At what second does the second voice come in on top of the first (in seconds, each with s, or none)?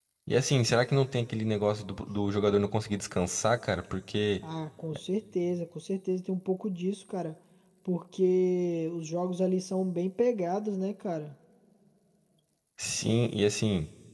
none